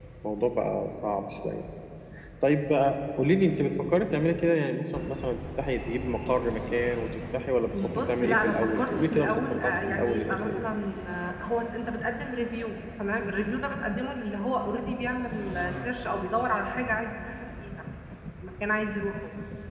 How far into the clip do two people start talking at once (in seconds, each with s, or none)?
7.7 s